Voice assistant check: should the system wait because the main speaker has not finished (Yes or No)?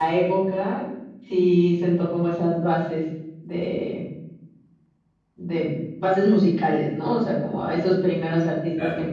Yes